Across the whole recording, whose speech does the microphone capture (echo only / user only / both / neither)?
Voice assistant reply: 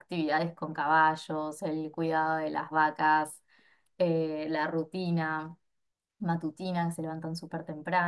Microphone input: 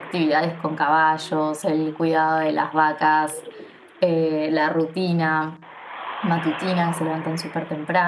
echo only